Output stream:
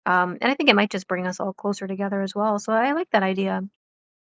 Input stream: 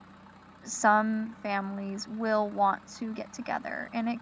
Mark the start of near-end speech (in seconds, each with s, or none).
0.6 s